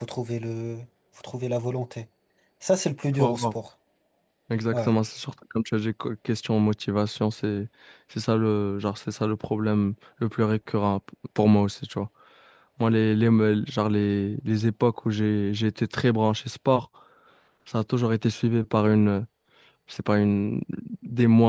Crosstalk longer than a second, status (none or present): none